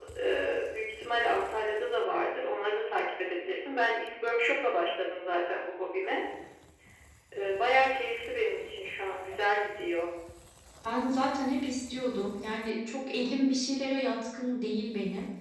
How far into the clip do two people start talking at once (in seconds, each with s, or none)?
none